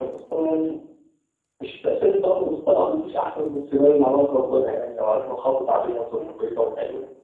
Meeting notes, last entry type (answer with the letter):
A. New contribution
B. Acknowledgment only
B